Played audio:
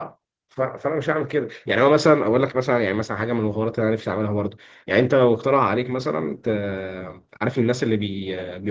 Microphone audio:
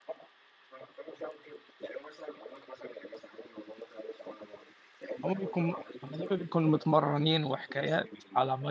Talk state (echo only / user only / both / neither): both